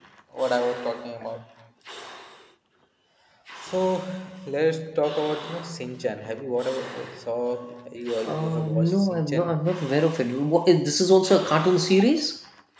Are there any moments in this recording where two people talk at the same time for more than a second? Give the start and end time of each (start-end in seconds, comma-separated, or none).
8.2-9.5